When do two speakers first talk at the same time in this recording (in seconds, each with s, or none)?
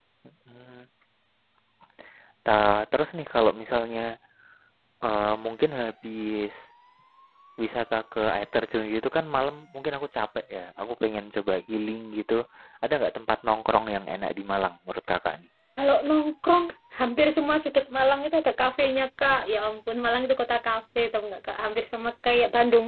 none